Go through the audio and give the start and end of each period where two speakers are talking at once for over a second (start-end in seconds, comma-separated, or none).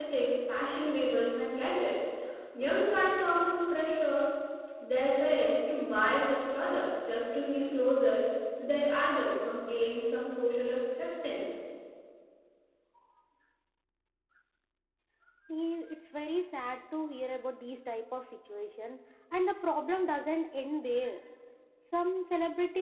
none